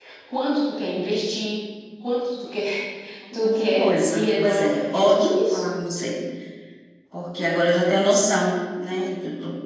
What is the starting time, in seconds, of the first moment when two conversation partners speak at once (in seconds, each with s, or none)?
3.4 s